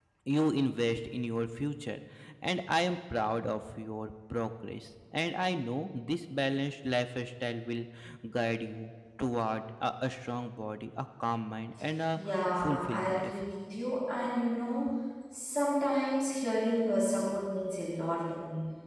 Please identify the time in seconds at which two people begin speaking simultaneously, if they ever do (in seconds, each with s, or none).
12.2 s